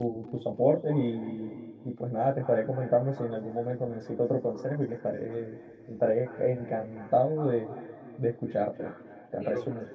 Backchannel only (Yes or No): No